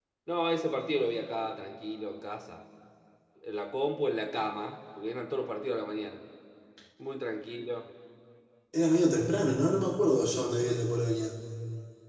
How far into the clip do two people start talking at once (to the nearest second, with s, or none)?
none